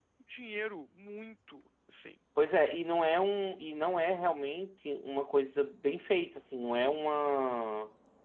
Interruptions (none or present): none